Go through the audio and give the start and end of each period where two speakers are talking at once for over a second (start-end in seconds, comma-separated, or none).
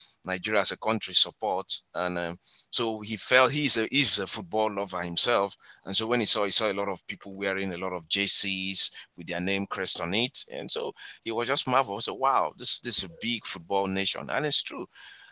none